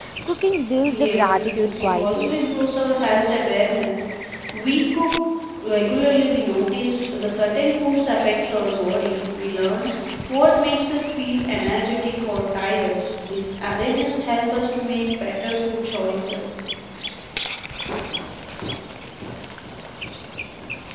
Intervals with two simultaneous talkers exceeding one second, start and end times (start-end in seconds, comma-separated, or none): 1.0-2.4